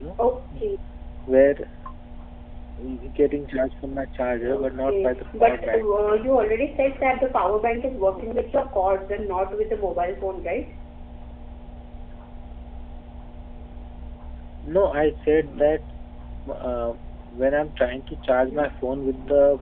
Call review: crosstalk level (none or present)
present